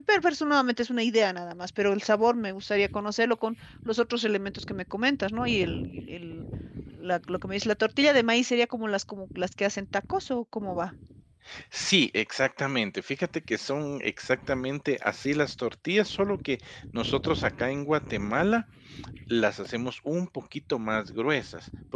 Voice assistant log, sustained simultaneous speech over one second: none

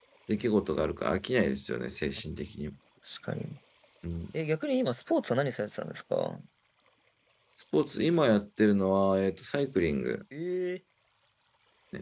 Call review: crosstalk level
none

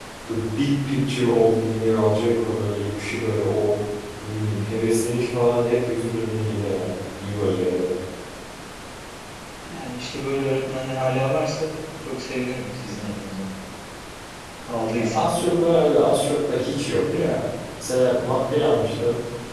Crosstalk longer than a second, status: none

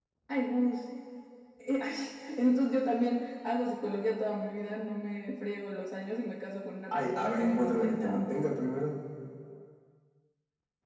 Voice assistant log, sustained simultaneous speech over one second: present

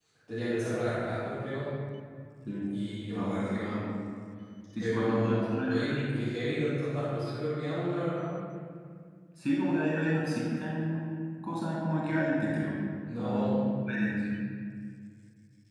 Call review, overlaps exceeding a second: present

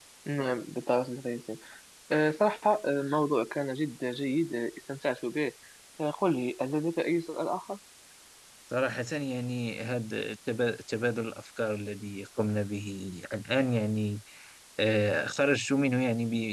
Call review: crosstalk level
none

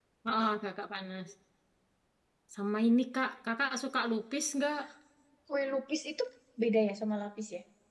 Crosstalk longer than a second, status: none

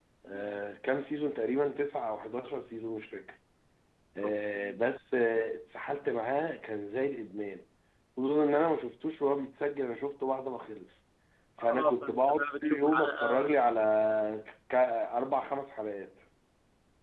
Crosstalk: present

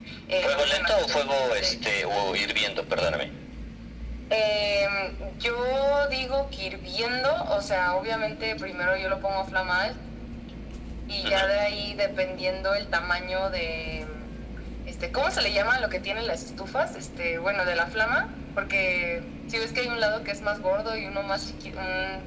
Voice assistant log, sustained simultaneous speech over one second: present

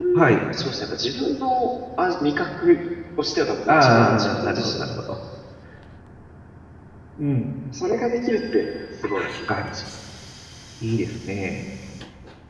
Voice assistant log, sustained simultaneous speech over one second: present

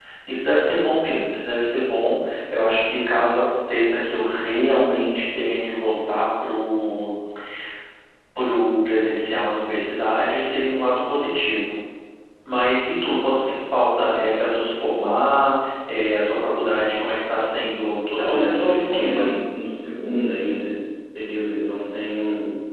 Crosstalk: present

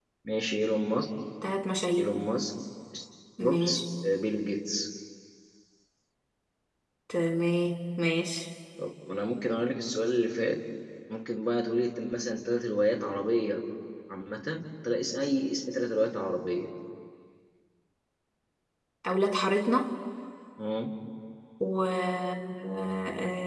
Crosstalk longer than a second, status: none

